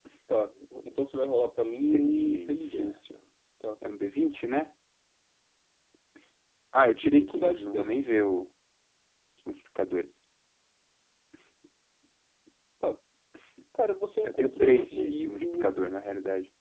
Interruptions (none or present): present